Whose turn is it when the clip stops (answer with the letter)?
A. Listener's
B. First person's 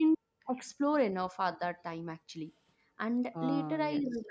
B